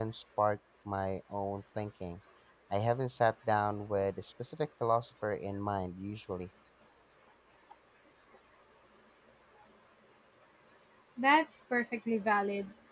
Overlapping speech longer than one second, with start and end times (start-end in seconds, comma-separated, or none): none